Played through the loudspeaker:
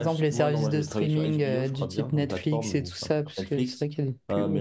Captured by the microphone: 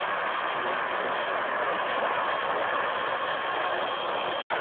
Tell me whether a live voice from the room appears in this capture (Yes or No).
No